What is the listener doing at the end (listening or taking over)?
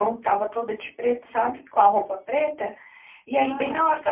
listening